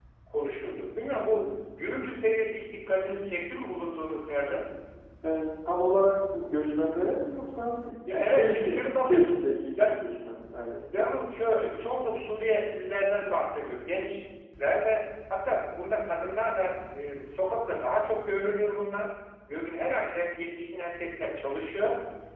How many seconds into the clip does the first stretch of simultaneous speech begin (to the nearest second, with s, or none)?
8 s